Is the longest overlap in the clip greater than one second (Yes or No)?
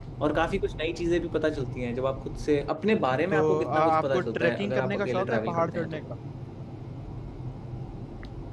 Yes